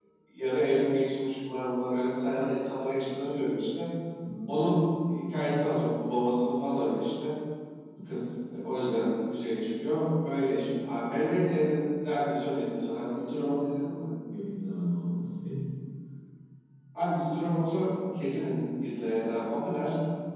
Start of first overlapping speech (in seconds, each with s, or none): none